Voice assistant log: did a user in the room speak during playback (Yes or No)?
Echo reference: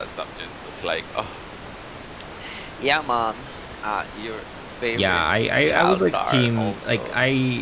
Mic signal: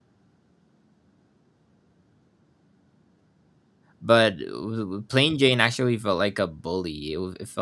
Yes